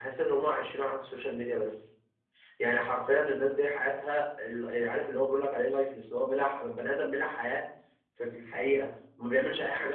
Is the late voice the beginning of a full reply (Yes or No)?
No